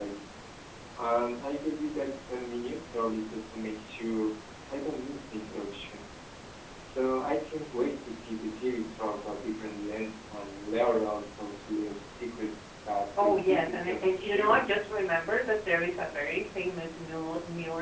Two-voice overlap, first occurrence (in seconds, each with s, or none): 13.2 s